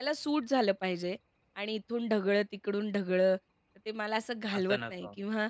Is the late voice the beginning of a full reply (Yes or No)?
No